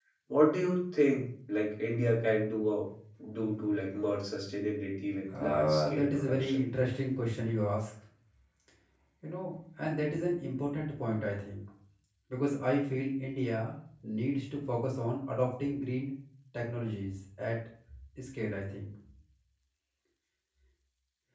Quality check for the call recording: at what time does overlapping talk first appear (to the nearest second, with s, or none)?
5 s